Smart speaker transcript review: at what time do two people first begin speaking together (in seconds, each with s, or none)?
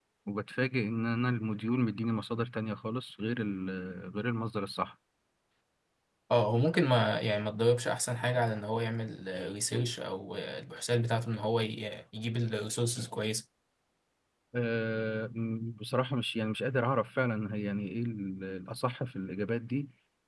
none